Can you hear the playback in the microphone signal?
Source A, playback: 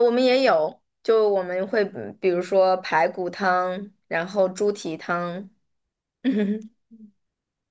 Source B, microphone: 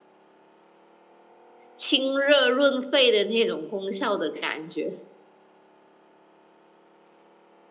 No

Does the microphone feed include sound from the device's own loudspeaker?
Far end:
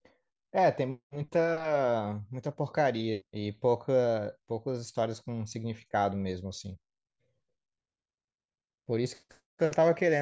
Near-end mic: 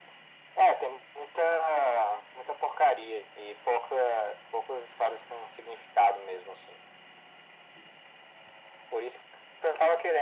Yes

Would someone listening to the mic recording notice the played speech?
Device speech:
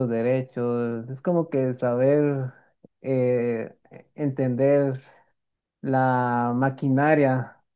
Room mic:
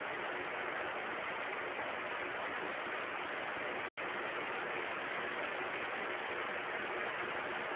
No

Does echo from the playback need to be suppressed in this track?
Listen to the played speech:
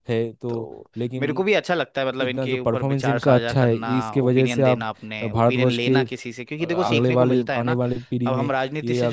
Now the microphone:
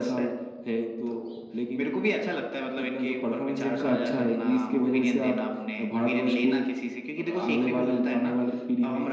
Yes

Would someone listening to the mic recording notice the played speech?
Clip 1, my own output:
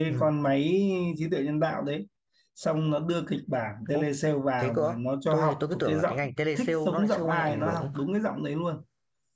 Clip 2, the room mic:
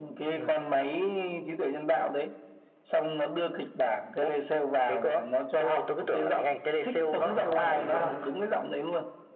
Yes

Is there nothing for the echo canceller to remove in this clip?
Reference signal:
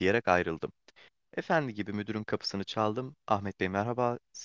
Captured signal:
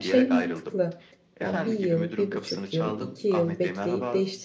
No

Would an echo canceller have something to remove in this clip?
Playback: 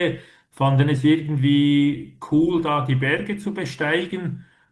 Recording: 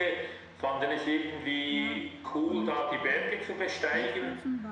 Yes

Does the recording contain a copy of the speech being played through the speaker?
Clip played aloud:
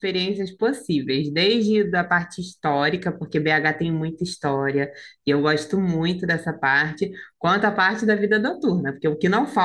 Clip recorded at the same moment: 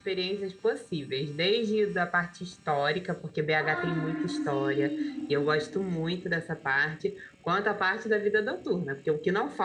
Yes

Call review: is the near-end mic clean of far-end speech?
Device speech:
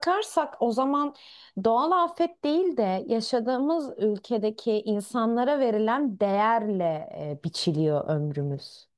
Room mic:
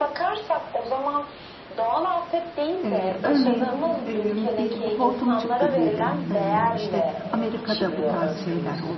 No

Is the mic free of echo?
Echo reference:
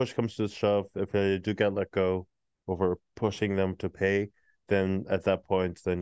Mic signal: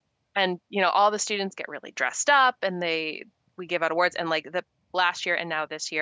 Yes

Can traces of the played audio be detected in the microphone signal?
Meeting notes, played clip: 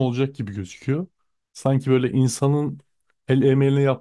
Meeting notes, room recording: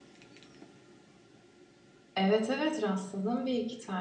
No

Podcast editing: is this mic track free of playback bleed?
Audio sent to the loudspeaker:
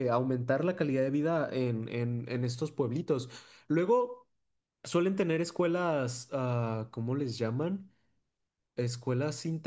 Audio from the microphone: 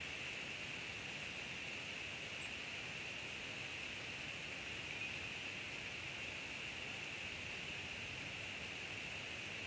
Yes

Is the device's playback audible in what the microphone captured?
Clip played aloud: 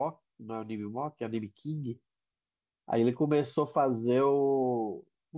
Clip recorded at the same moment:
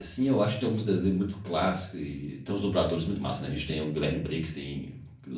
No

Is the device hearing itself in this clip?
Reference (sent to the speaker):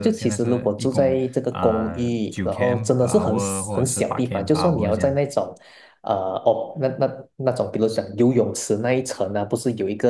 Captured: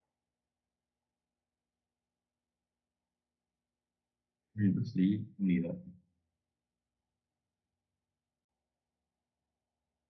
No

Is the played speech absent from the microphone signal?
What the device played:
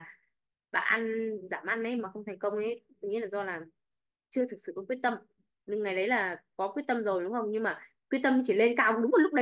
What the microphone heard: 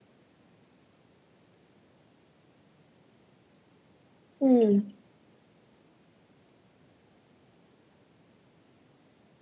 Yes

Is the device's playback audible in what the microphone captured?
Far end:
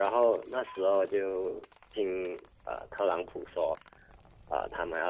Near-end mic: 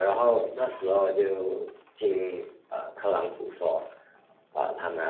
Yes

